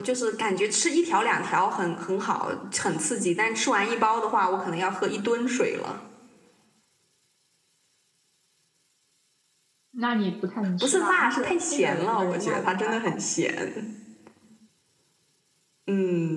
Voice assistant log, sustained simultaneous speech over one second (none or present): present